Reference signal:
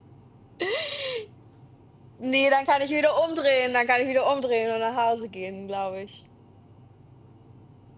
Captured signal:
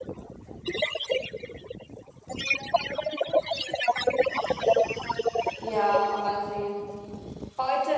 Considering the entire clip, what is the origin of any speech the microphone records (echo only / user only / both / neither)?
both